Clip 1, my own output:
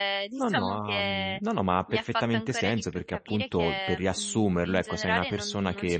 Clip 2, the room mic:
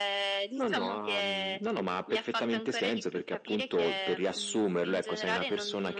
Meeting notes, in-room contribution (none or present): none